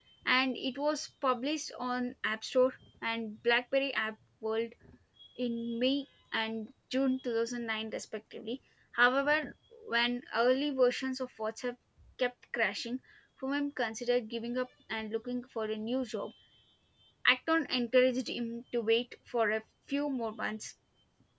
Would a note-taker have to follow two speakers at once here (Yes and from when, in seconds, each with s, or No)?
No